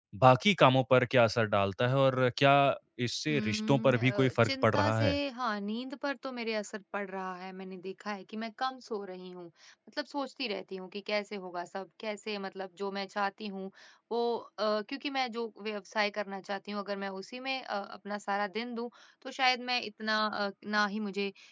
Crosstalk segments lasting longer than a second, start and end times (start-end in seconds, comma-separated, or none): 3.3-5.2